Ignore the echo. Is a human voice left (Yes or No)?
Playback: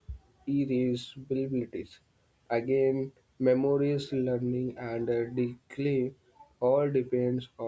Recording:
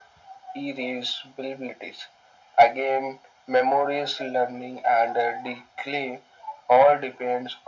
No